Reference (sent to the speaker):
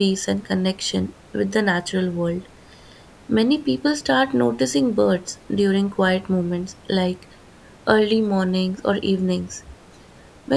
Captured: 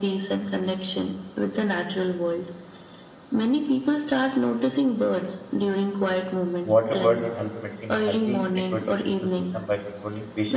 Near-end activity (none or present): present